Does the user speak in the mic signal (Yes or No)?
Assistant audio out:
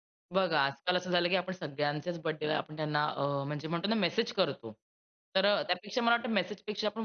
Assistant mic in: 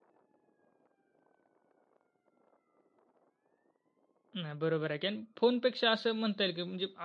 Yes